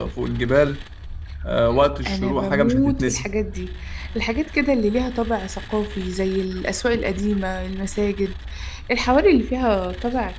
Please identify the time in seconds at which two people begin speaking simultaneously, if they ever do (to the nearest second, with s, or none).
2 s